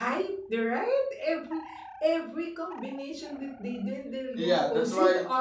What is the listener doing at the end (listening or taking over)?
taking over